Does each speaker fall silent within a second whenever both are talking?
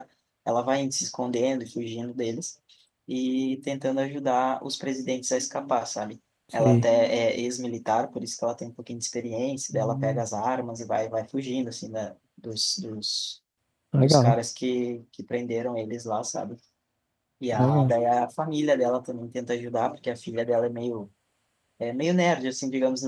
Yes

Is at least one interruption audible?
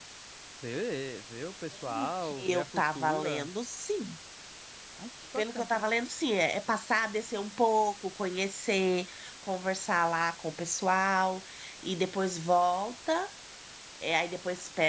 Yes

